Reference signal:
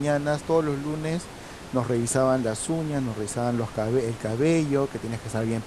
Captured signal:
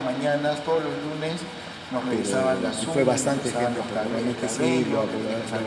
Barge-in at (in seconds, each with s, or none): 2.1 s